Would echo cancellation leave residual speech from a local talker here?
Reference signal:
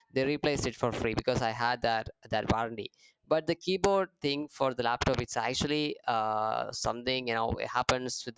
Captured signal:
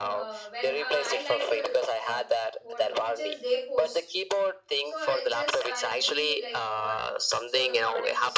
Yes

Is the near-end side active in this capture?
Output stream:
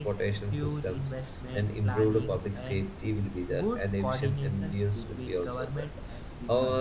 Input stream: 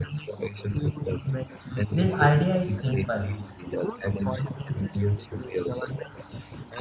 Yes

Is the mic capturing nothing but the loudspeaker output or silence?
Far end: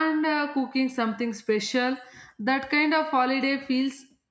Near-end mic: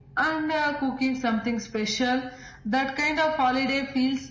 Yes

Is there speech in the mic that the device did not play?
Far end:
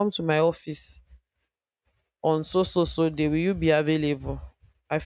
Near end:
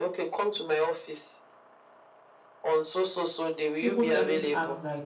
Yes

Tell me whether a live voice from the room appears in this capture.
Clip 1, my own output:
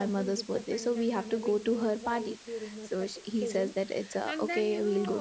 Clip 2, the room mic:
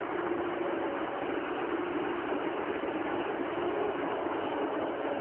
No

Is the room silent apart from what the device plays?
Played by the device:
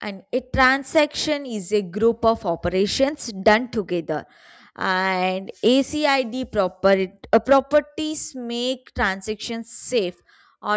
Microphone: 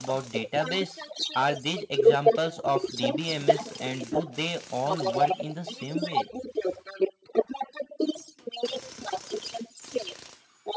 No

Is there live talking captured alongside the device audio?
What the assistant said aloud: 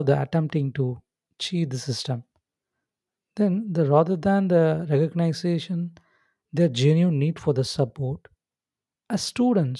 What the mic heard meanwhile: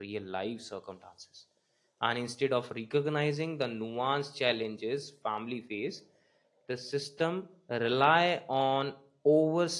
Yes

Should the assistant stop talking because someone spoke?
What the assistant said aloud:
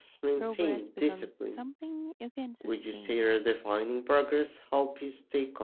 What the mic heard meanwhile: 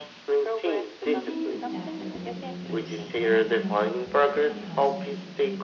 Yes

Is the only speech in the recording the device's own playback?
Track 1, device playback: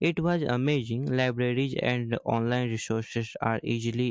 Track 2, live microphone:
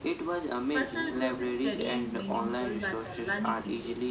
No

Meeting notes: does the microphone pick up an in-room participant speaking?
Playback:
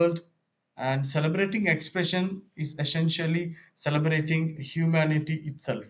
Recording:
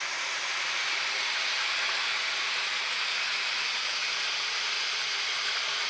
No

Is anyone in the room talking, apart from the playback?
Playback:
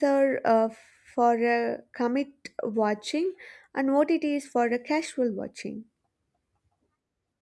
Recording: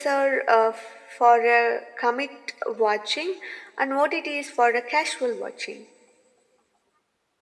No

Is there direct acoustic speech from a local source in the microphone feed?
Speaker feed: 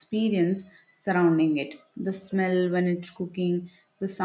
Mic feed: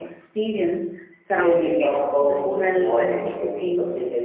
Yes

